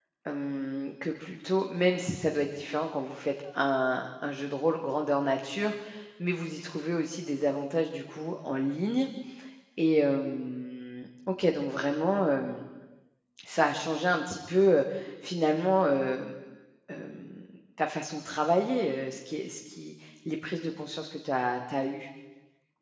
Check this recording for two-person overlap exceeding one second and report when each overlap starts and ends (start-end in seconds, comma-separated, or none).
none